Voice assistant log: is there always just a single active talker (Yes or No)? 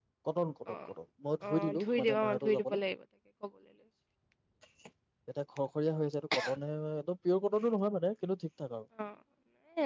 No